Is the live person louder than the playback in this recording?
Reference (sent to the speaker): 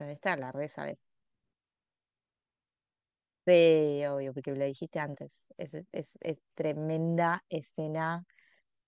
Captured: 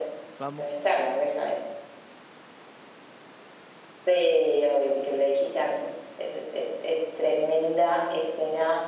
No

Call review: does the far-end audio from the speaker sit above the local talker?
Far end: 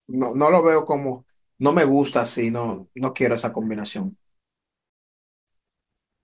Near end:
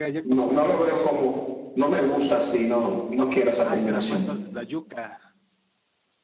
Yes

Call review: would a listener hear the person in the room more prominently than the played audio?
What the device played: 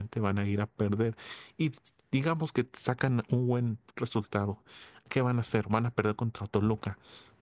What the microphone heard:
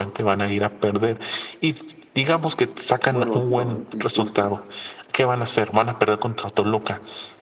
No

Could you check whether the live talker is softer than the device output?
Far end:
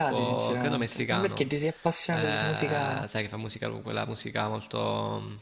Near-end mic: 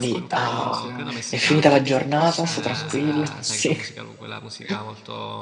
No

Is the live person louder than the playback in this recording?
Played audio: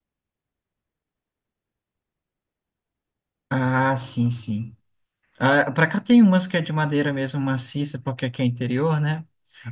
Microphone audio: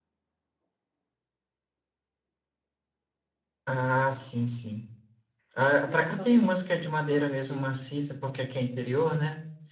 No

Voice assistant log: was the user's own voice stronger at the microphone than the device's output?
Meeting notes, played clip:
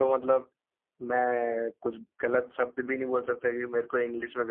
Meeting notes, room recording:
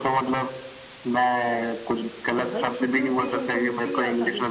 No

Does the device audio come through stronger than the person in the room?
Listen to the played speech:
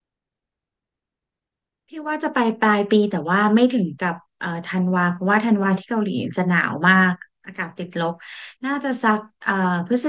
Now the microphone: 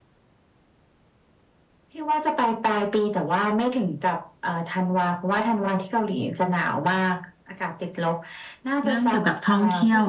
No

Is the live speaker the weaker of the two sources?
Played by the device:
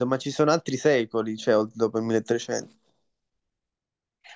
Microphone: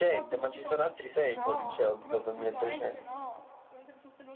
Yes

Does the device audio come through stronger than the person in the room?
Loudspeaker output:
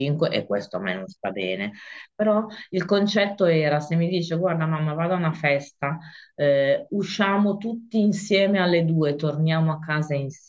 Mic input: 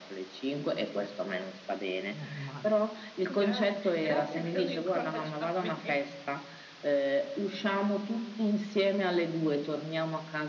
Yes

